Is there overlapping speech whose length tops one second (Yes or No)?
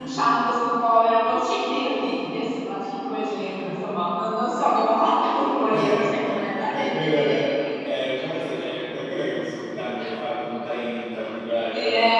Yes